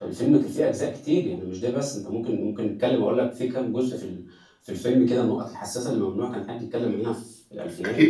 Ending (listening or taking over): taking over